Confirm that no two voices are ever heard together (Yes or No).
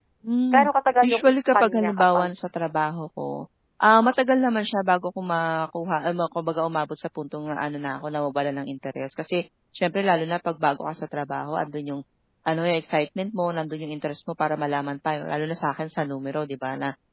No